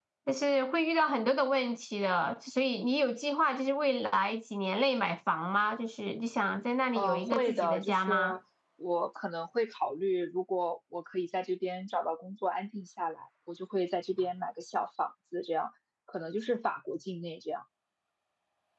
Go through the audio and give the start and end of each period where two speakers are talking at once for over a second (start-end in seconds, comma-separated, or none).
7.0-8.4